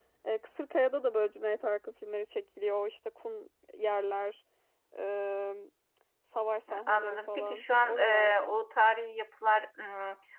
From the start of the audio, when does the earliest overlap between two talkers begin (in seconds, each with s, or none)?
6.9 s